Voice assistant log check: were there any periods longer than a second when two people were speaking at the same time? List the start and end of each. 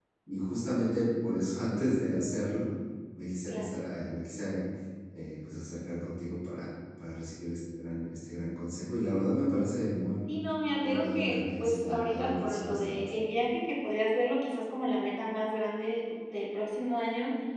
10.8-13.0

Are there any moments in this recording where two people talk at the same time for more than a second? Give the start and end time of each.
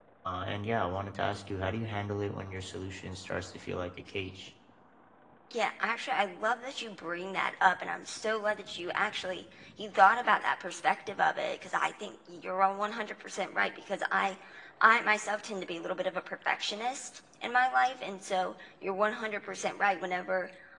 none

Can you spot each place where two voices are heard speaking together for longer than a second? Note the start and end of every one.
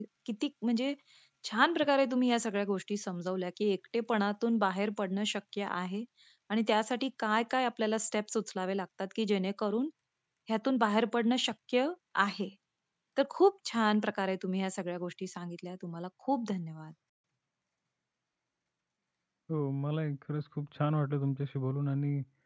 none

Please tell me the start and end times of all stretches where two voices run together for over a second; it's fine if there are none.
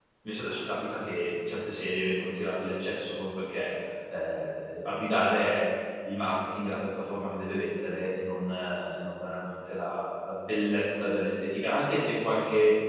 none

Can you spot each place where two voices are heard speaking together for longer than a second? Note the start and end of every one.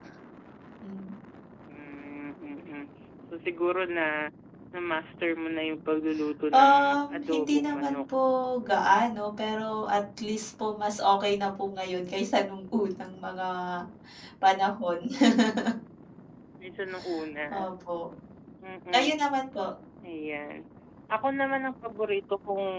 6.5-8.0

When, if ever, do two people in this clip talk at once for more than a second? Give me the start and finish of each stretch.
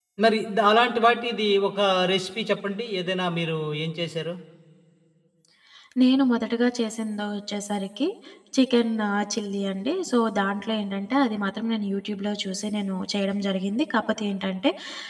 none

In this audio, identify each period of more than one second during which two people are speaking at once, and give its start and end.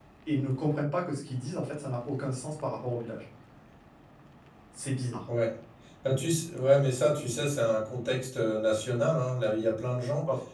none

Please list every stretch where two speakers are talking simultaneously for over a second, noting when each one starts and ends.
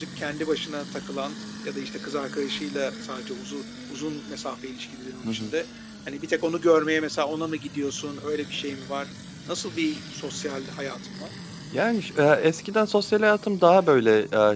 none

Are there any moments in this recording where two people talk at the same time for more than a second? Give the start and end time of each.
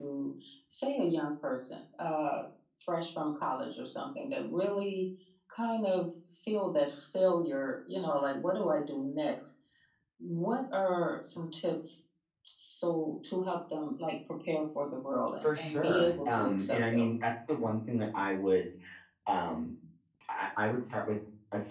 15.4-17.1

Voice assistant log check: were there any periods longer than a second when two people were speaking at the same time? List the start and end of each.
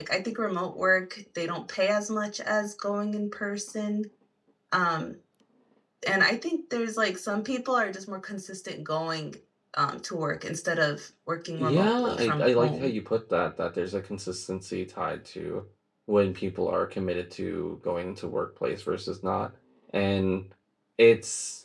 11.6-12.9

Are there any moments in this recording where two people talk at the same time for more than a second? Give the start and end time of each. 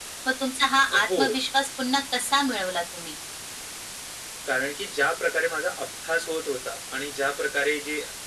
none

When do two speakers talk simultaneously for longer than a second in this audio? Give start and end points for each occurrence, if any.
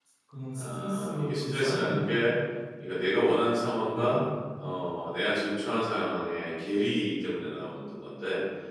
0.6-2.3

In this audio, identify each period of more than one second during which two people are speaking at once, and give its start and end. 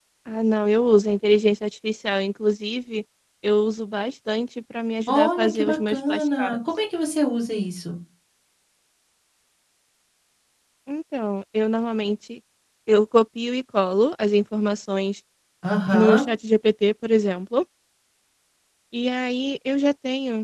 5.1-6.6

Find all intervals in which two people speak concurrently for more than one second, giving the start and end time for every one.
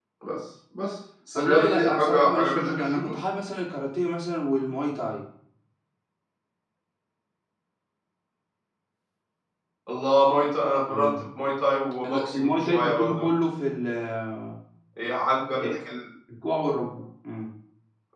1.4-3.1, 12.1-13.3

